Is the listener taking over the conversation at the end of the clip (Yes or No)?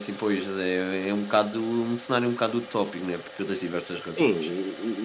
Yes